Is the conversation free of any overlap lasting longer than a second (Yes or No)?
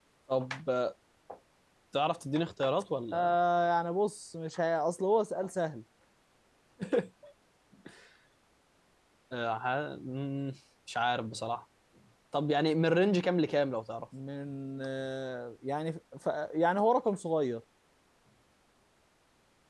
Yes